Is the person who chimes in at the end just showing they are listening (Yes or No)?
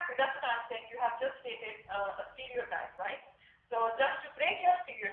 Yes